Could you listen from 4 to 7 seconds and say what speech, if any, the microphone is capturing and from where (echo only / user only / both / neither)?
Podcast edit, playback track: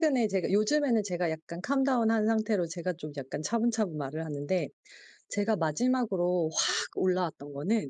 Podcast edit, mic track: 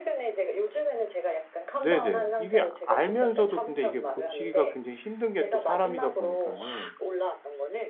both